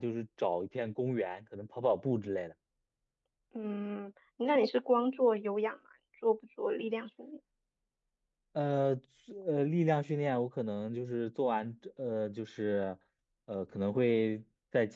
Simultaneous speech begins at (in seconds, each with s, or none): none